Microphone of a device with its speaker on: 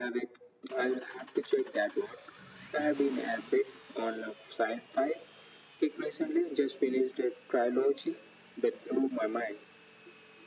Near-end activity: none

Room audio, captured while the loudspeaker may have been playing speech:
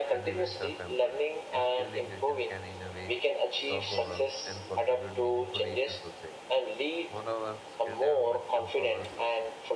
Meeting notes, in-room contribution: present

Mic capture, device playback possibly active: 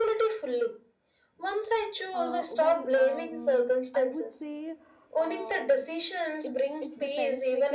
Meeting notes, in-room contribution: present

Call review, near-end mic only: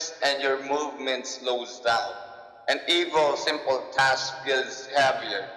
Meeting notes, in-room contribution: none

